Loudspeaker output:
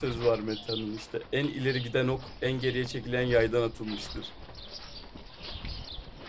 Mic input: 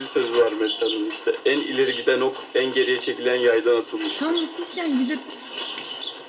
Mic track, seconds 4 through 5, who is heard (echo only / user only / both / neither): both